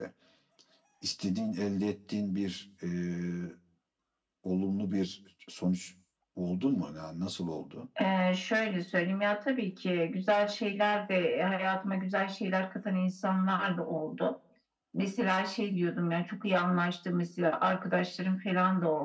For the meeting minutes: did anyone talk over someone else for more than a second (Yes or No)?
No